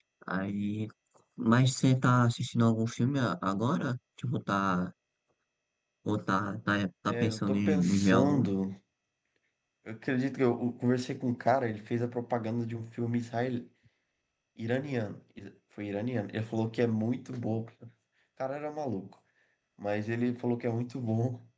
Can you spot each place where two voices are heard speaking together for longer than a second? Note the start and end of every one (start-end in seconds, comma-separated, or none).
7.1-8.5